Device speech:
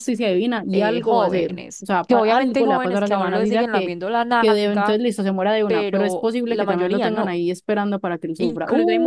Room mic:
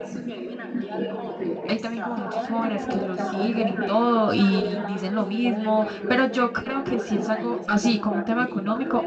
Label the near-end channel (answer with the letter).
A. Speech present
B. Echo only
A